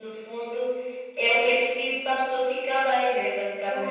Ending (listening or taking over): taking over